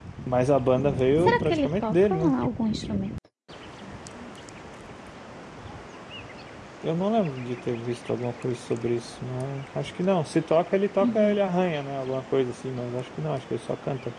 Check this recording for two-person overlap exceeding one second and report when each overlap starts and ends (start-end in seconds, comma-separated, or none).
0.8-2.4